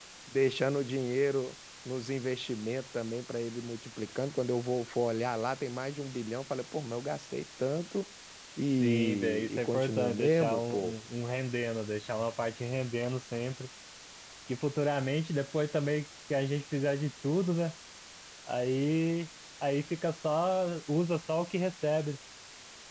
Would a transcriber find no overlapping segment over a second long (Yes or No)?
No